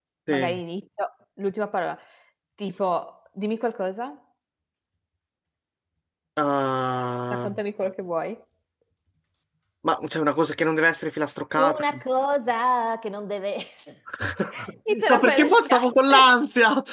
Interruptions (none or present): present